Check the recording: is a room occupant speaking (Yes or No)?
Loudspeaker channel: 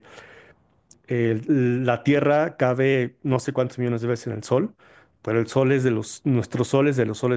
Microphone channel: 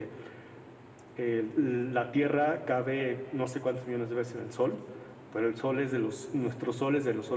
No